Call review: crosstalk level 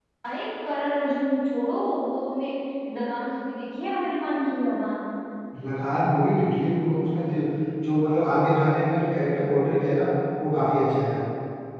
none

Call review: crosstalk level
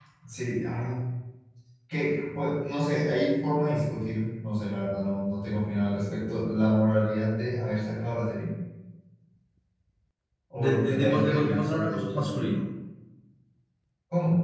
present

